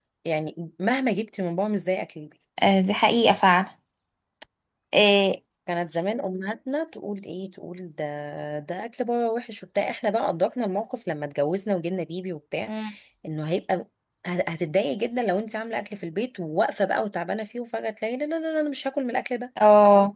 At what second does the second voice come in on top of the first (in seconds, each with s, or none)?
none